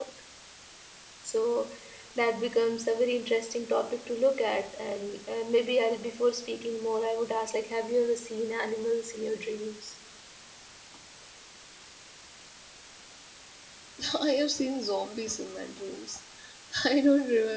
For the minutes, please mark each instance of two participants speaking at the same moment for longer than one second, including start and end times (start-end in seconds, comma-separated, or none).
none